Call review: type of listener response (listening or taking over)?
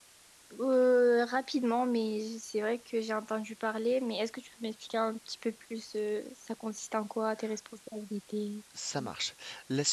taking over